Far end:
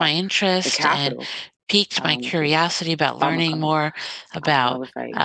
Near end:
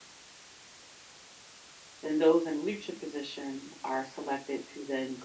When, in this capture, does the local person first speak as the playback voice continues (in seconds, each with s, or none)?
2.0 s